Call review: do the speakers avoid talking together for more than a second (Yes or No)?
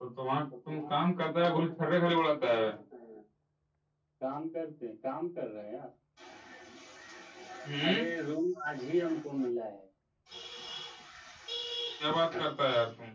No